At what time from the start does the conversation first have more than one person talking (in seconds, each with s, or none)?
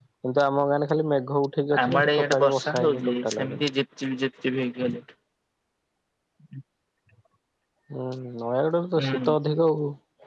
1.8 s